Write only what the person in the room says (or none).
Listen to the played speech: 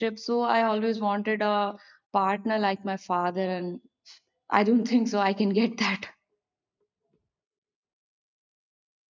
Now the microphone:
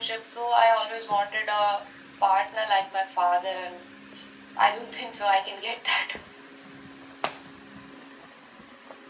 none